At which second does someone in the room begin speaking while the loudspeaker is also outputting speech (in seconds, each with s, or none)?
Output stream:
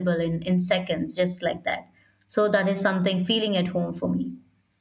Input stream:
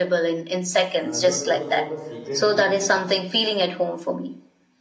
0.9 s